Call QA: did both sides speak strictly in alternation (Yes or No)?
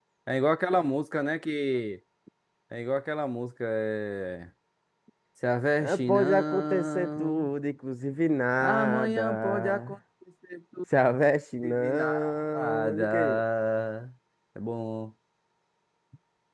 No